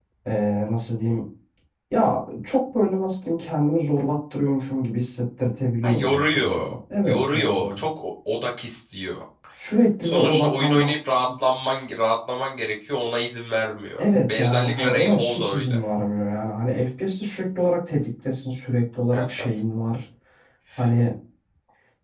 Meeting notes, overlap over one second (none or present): present